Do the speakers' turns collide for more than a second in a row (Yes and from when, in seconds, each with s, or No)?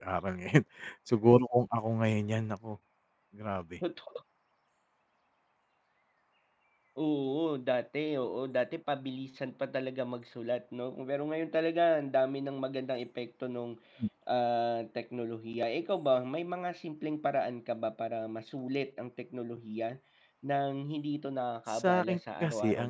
Yes, from 21.7 s